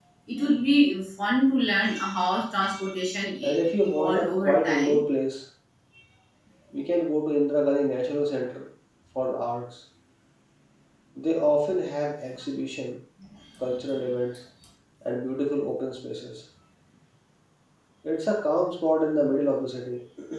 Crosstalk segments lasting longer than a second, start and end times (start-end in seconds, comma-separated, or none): 3.4-5.0